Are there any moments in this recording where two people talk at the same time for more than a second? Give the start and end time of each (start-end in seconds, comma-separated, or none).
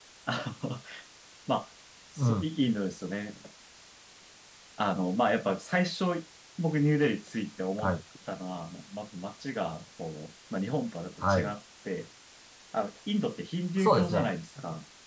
none